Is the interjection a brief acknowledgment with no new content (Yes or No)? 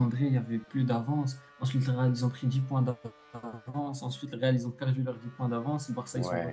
Yes